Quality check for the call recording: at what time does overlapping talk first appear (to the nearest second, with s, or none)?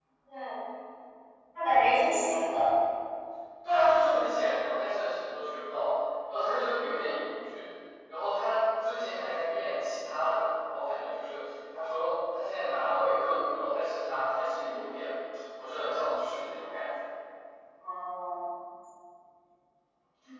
none